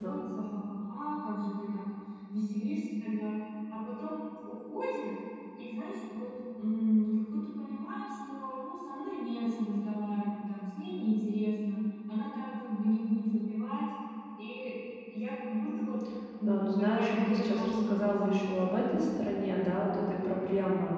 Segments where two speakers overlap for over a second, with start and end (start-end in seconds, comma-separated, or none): 16.4-18.7